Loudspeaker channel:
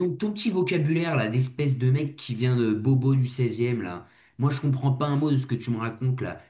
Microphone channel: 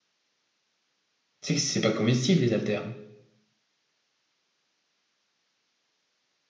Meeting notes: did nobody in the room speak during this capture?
No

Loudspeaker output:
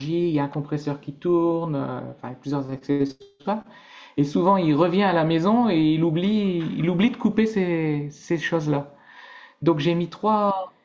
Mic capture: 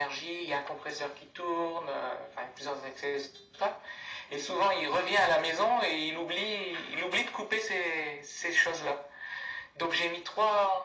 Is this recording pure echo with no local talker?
Yes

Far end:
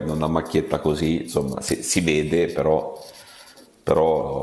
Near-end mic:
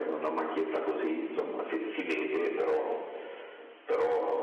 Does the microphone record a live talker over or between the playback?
No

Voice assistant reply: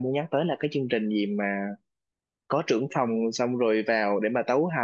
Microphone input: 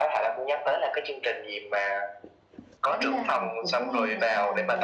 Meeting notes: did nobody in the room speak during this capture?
No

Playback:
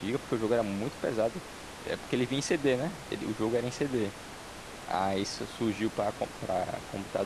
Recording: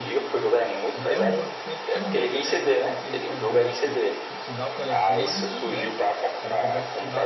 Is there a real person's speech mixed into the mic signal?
Yes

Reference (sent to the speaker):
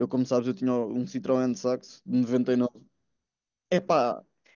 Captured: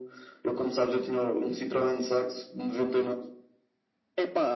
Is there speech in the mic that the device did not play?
No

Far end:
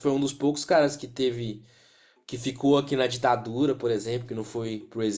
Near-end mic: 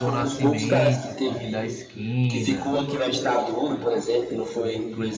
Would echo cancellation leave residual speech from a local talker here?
Yes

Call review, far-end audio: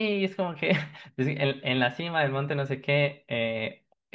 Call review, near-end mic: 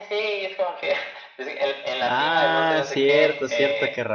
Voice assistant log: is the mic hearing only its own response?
No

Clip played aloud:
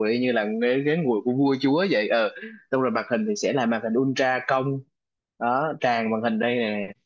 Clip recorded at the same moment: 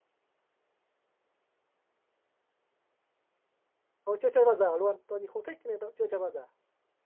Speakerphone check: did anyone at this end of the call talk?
Yes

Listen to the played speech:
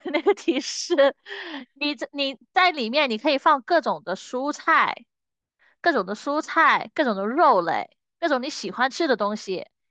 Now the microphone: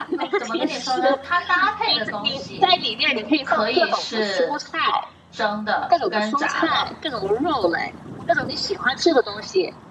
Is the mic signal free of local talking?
No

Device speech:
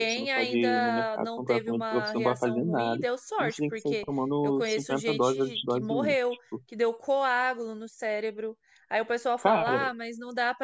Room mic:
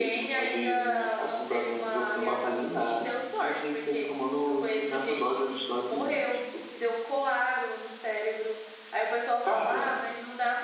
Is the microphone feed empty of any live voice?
Yes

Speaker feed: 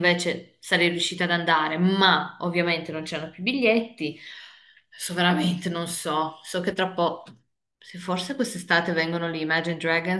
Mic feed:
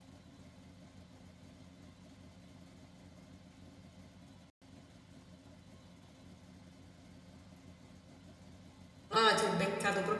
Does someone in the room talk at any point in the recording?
Yes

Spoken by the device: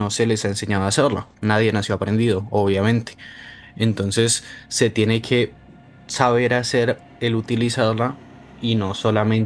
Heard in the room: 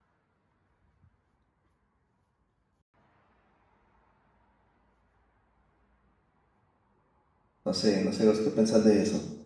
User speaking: Yes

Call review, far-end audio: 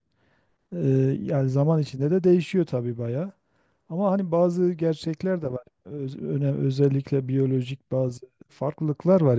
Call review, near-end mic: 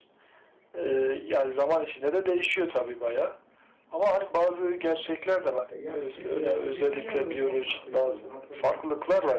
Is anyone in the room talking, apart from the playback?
Yes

